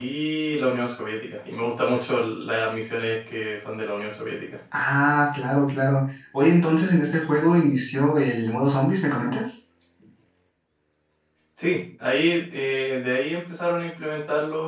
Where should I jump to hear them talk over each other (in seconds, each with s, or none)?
none